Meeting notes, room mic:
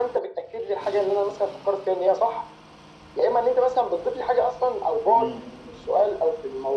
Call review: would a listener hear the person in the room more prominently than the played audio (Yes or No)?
No